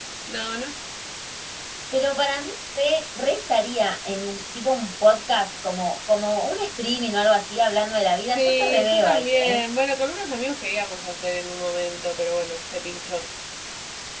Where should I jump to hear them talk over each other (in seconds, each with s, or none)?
8.3 s